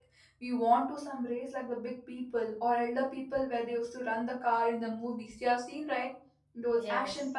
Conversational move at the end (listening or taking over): listening